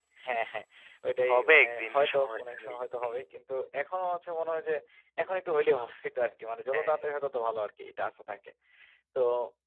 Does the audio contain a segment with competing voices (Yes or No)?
Yes